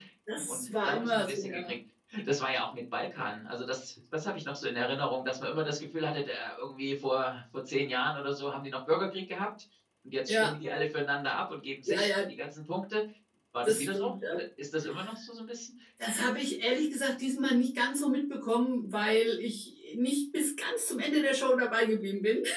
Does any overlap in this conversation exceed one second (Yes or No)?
Yes